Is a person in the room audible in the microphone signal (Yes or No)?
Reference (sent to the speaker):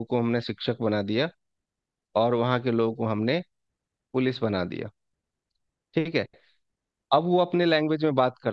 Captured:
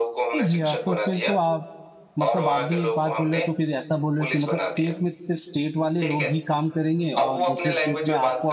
Yes